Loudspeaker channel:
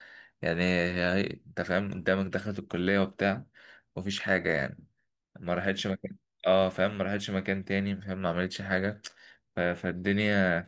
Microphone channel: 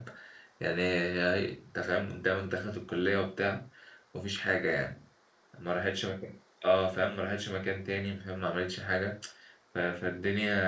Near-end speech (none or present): none